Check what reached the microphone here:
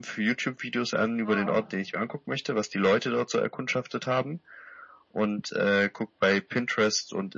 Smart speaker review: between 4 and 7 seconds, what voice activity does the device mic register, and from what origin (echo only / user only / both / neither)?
echo only